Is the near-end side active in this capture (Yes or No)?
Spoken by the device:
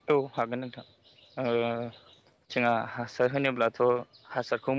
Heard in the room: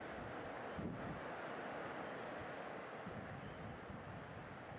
No